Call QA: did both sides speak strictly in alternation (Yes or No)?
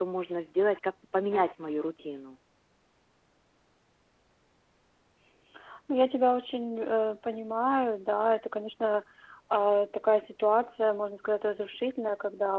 Yes